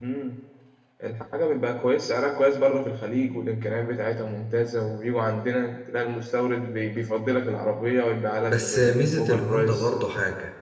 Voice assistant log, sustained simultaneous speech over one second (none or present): present